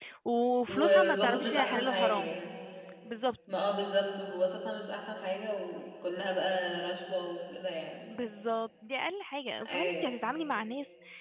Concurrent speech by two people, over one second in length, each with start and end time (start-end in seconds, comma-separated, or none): 0.7-2.3